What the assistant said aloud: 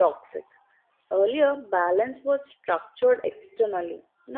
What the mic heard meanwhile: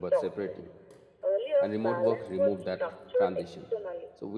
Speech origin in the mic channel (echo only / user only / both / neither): both